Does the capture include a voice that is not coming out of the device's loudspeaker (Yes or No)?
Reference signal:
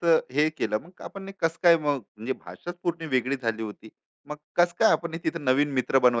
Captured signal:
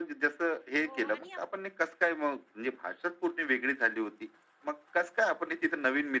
Yes